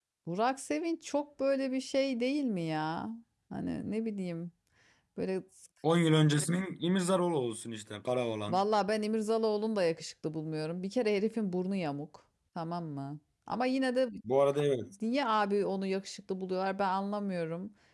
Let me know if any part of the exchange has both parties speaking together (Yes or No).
No